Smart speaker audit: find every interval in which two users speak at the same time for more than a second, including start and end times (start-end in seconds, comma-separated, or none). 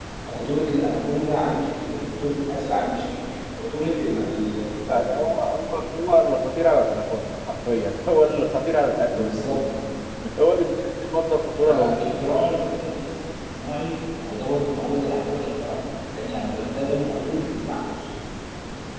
none